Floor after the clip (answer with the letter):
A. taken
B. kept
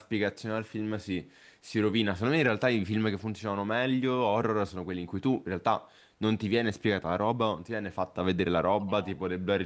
B